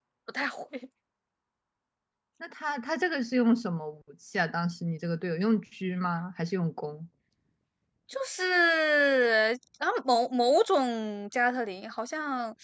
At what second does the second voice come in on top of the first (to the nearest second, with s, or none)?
none